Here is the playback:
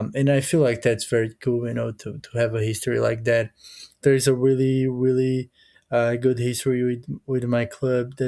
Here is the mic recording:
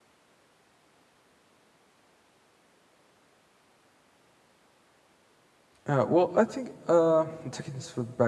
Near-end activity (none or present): present